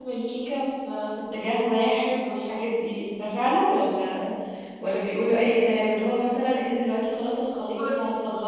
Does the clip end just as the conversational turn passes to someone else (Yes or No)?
No